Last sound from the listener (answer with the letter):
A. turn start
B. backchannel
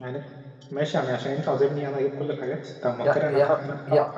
A